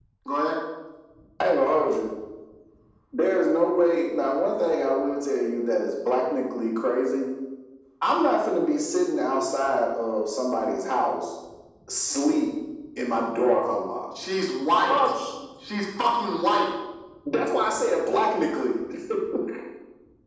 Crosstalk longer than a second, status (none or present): none